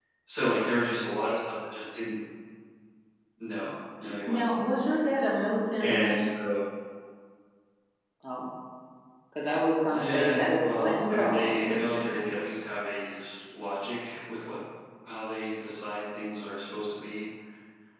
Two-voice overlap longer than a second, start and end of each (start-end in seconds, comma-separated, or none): 9.9-11.5